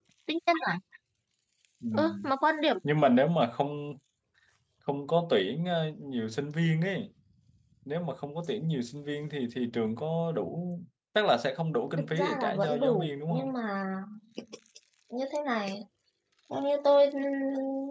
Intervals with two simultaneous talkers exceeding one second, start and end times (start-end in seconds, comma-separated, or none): 12.0-13.5